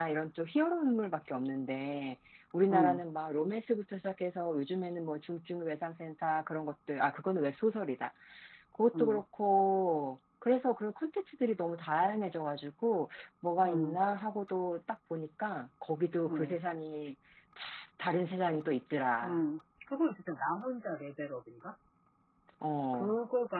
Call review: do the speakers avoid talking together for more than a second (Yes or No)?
Yes